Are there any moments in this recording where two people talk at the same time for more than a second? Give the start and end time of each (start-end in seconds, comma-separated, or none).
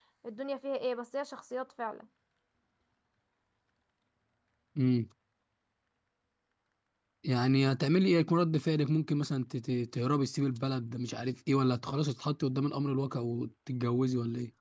none